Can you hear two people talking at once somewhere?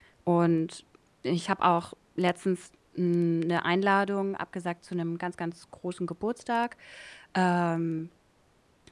No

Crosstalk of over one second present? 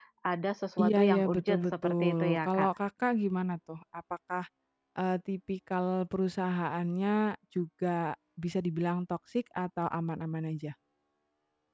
Yes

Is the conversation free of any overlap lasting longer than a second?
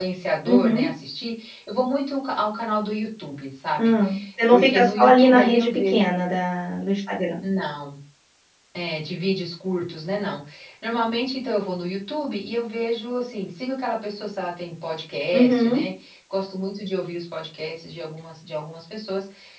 No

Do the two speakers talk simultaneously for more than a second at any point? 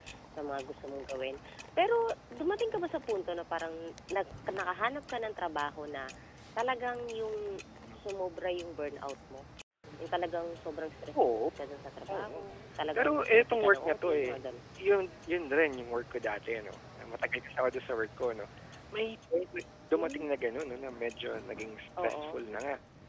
Yes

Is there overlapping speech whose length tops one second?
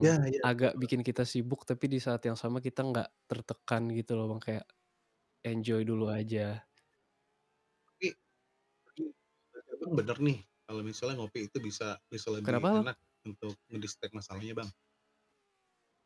No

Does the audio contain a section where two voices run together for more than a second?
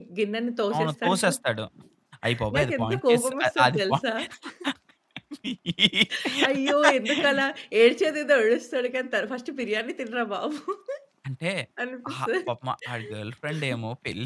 Yes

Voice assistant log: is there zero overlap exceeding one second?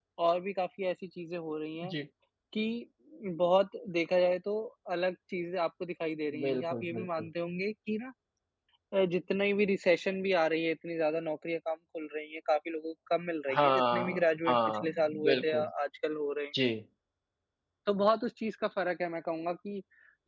No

